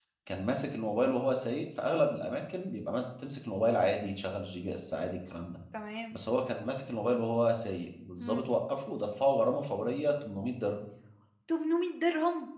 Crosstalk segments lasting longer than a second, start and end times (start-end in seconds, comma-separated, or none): none